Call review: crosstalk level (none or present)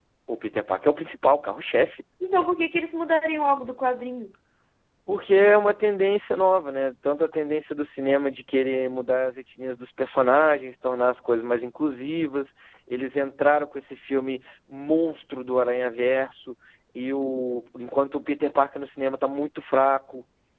none